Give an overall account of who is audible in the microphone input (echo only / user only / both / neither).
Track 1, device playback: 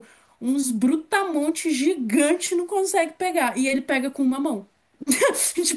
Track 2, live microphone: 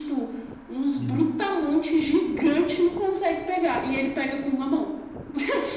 both